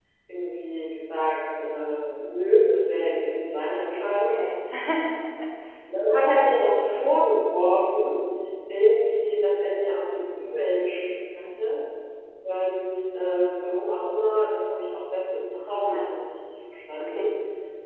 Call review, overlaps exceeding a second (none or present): none